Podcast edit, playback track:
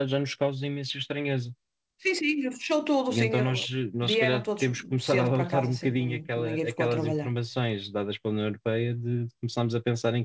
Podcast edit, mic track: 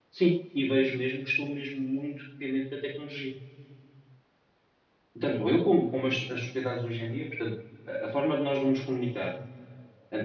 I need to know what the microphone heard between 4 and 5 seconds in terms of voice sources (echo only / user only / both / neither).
neither